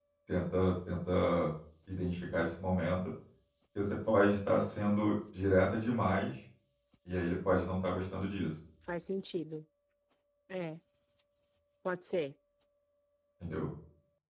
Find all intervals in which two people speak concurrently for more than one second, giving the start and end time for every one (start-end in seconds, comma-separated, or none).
none